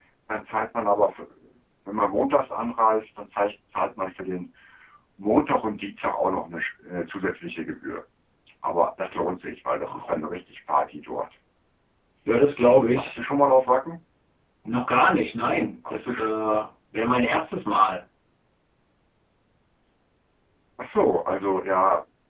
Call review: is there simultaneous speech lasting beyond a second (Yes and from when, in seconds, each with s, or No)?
No